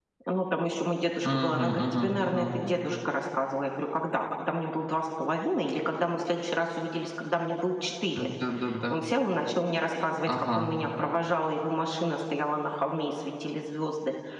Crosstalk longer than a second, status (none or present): present